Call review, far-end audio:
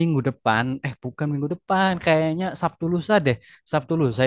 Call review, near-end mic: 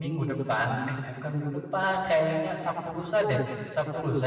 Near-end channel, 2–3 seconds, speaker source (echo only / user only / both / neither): echo only